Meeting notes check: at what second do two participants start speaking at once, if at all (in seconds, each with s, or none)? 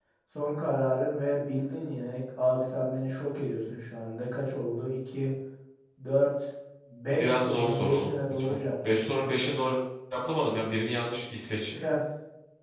7.1 s